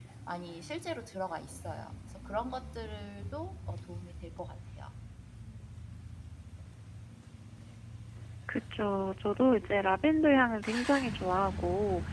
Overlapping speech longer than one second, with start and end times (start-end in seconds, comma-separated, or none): none